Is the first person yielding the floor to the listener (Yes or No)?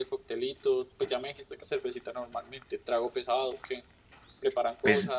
Yes